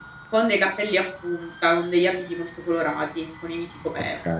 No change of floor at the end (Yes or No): No